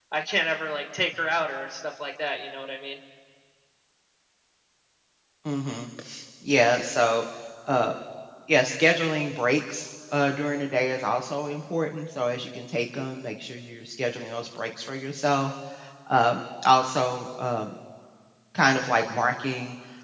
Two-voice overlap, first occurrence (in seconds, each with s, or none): none